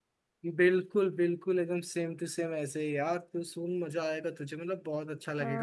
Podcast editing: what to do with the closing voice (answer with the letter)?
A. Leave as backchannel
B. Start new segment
B